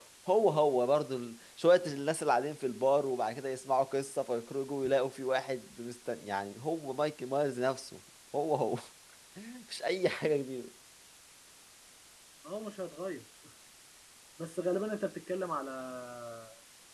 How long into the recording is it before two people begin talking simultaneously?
none

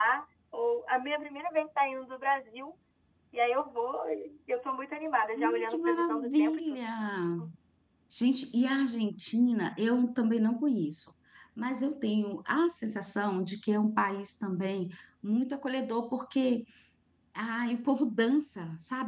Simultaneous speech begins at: 5.3 s

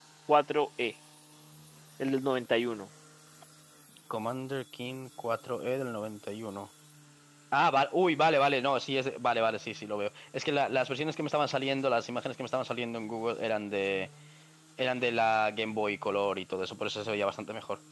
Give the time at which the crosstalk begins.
none

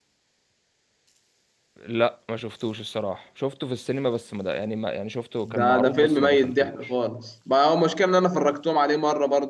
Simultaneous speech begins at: 5.5 s

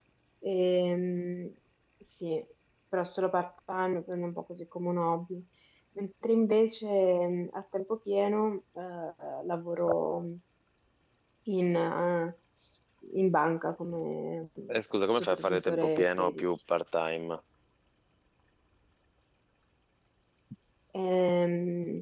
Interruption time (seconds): 15.1 s

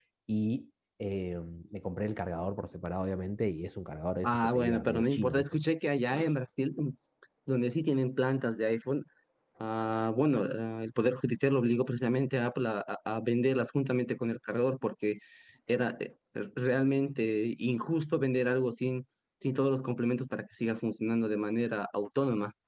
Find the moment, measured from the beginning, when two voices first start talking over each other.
4.2 s

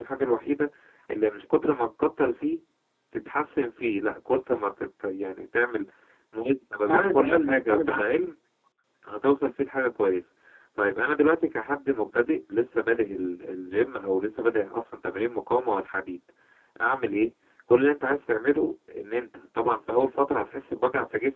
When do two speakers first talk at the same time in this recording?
6.9 s

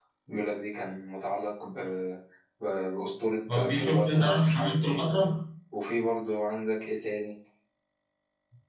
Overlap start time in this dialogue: 3.5 s

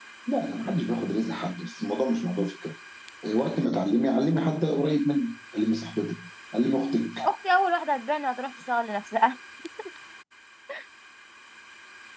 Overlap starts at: none

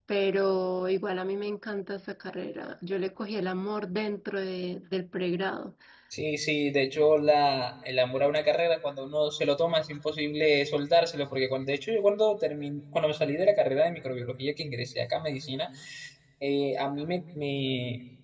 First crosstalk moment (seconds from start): none

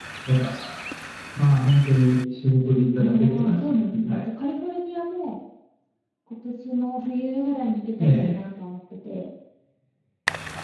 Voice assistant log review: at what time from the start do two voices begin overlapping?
3.0 s

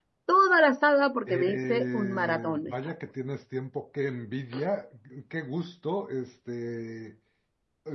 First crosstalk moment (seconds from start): 1.3 s

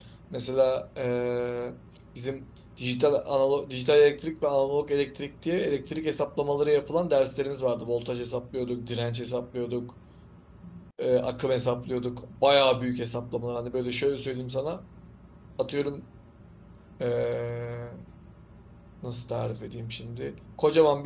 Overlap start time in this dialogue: none

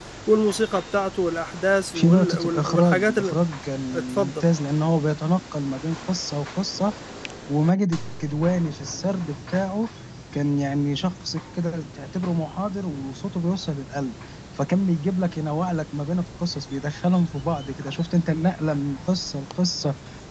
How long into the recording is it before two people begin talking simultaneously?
1.9 s

